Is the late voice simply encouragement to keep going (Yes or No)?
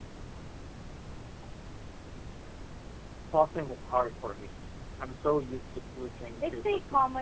No